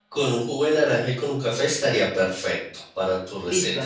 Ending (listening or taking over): taking over